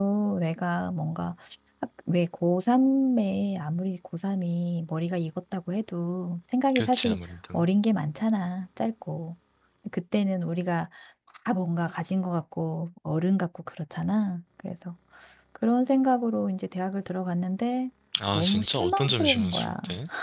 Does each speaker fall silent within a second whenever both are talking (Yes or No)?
No